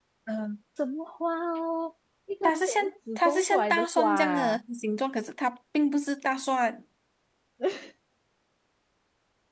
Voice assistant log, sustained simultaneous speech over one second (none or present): present